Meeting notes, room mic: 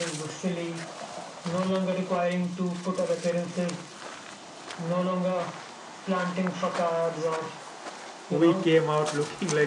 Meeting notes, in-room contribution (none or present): present